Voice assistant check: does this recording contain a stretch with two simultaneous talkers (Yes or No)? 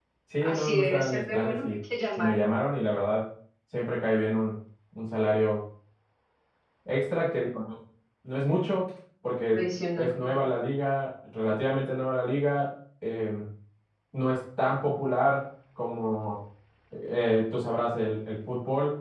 Yes